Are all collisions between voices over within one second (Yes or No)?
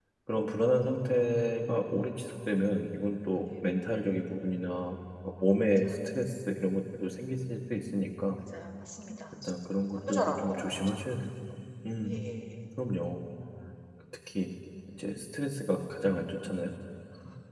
No